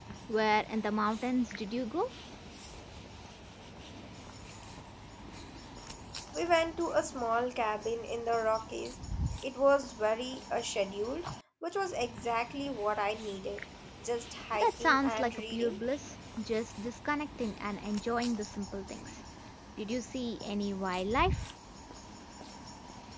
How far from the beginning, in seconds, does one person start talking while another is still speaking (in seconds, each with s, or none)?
14.5 s